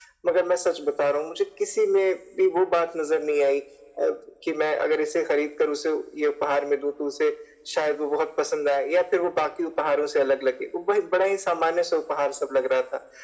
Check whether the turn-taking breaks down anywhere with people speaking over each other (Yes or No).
No